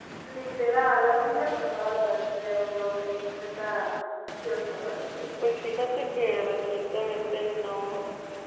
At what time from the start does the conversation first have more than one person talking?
none

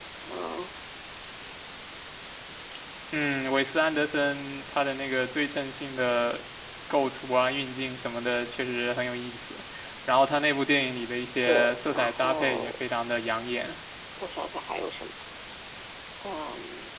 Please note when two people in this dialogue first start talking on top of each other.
11.4 s

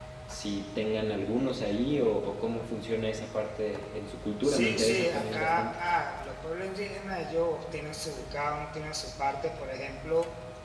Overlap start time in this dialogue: 4.4 s

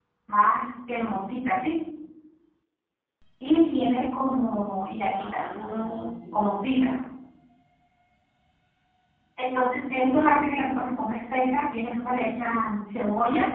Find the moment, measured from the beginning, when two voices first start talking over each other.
5.1 s

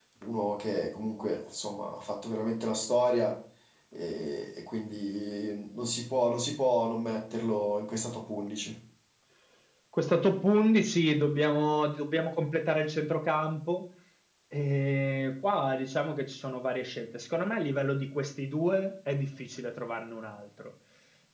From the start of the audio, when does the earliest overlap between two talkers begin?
none

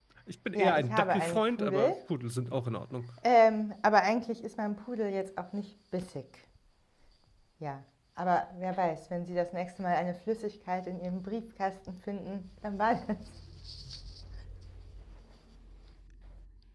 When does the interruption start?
0.6 s

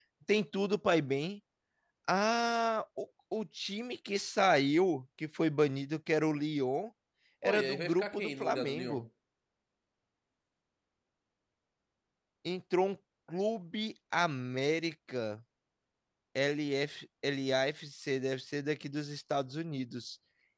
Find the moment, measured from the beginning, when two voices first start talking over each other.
7.4 s

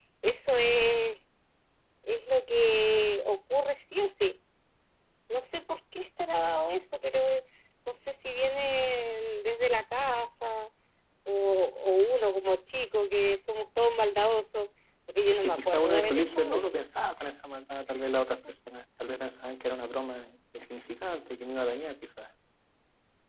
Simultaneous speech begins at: 15.2 s

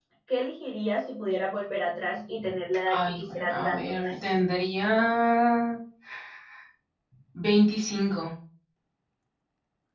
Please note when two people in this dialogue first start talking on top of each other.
2.9 s

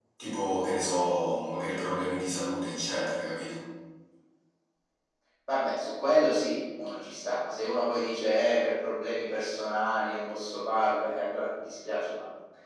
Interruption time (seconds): none

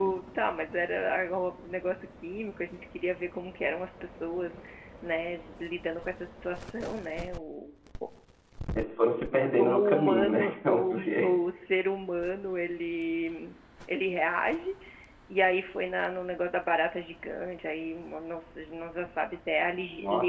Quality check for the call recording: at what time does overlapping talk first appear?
9.6 s

